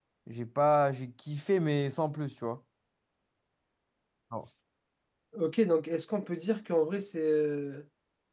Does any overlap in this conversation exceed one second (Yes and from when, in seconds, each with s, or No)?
No